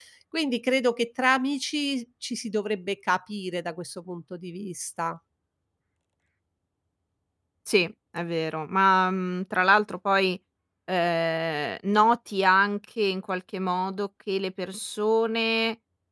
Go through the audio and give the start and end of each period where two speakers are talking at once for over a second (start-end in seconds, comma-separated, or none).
none